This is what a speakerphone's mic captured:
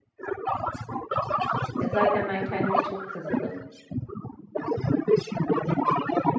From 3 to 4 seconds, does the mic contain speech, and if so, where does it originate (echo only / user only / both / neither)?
both